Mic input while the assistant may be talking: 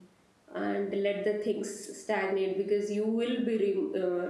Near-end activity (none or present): present